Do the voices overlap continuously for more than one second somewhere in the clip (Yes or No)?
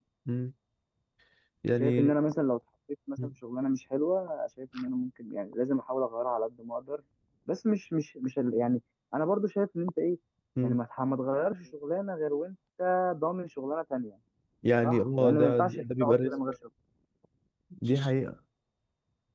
Yes